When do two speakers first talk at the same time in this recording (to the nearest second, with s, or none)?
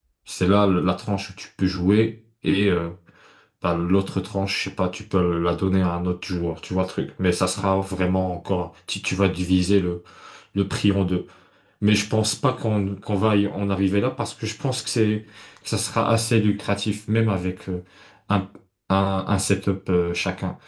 none